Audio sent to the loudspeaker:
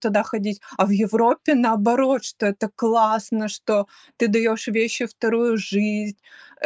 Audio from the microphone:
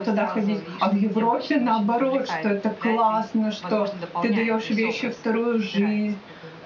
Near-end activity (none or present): present